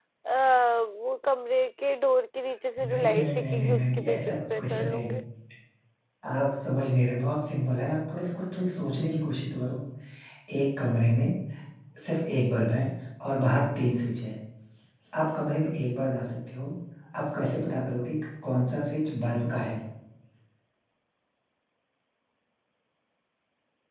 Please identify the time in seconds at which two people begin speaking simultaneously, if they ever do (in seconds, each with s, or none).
2.8 s